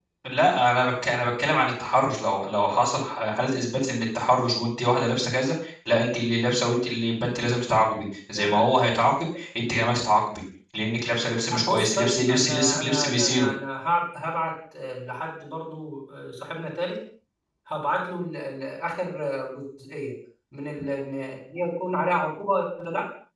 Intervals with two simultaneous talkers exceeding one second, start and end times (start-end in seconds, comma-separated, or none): 11.5-13.5